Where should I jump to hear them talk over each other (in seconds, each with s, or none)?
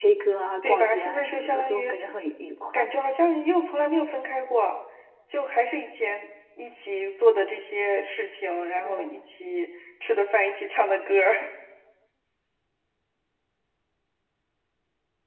0.6 s